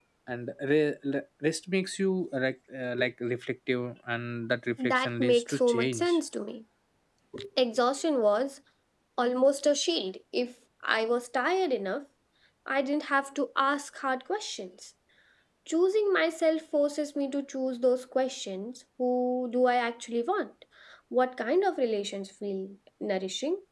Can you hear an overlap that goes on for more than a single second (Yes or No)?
Yes